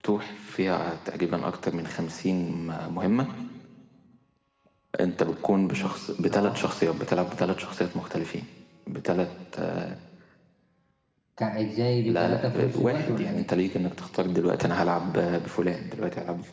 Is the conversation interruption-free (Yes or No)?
No